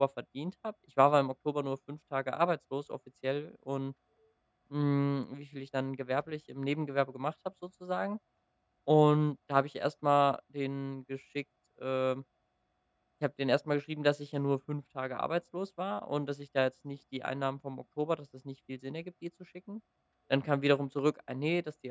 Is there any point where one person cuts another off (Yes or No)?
No